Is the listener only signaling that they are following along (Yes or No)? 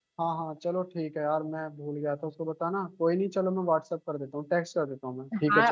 No